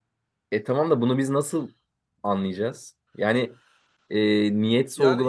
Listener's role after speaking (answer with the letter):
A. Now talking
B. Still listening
A